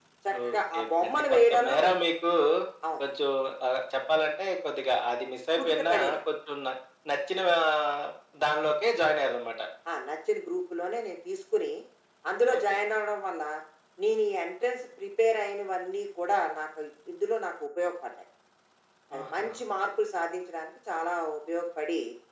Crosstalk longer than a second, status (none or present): present